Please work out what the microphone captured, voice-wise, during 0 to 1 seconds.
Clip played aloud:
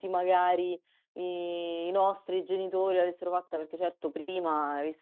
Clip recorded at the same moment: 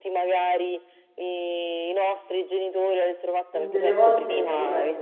echo only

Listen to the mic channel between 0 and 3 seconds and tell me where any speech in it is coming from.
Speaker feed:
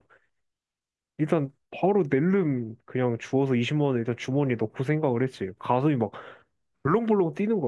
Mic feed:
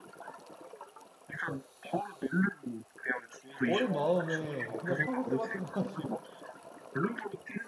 echo only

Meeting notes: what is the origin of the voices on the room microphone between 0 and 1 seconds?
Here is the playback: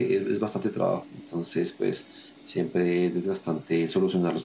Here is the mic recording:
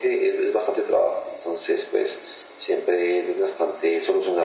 echo only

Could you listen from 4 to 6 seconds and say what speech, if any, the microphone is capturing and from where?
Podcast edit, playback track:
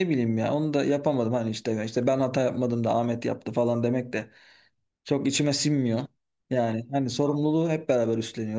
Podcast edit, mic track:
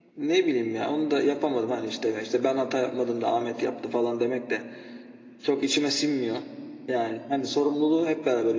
echo only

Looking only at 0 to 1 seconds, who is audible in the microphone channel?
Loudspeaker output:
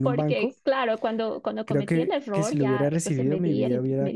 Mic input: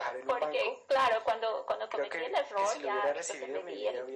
echo only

